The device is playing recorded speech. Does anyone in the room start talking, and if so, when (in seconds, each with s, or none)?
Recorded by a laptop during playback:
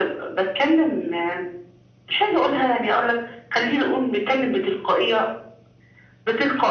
none